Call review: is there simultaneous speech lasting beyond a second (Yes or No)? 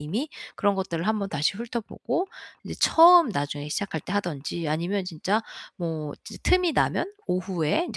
No